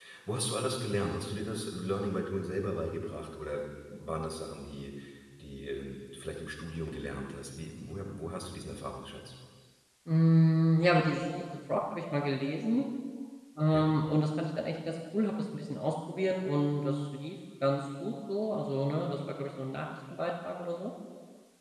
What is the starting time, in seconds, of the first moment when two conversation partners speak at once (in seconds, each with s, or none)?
none